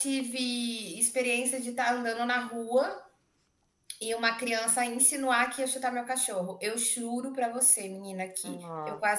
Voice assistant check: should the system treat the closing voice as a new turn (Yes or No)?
No